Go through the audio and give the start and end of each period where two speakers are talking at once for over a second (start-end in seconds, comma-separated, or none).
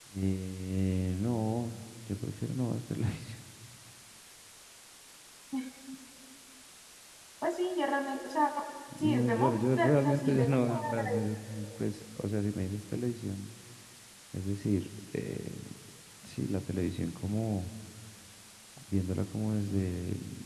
9.0-11.0